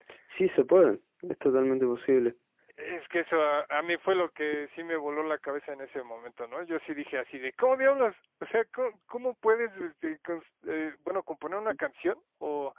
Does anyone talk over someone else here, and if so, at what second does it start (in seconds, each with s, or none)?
none